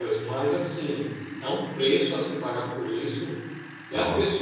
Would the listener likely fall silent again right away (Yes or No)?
Yes